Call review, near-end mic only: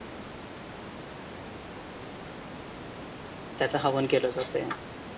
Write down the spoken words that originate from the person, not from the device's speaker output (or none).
त्याचं हवन केलं जातंय.